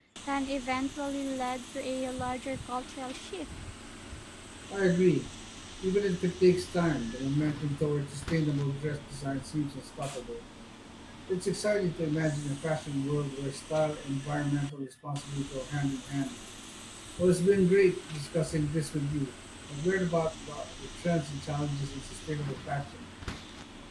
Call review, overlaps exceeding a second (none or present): none